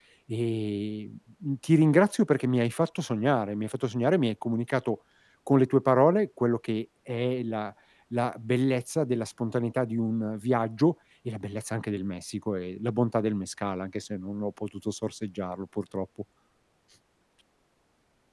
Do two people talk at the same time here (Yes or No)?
No